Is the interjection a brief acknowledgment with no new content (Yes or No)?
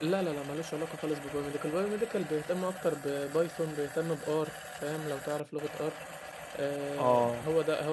No